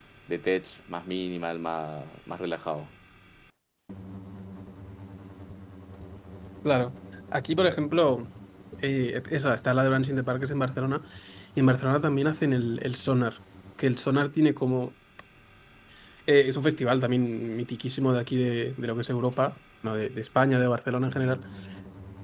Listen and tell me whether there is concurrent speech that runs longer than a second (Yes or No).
No